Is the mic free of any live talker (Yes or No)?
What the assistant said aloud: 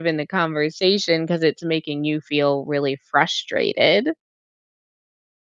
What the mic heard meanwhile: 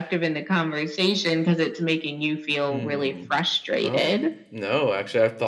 No